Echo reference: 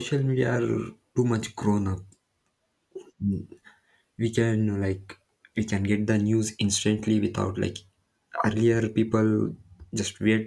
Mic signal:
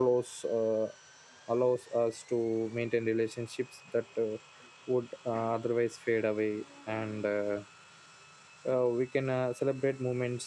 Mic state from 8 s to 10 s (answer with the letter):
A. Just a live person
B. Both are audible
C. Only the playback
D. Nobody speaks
A